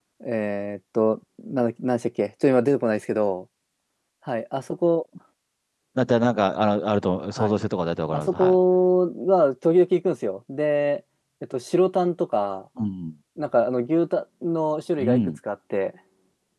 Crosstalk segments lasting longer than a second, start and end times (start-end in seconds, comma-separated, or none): none